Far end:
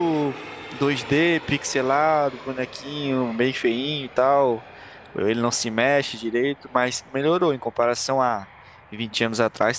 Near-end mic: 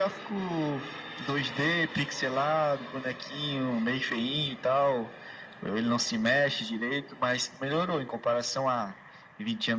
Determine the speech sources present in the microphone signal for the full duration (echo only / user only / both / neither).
echo only